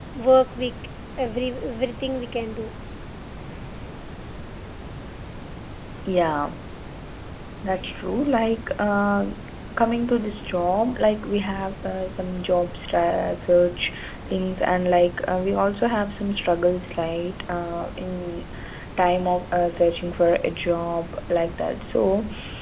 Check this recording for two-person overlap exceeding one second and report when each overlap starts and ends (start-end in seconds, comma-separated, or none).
none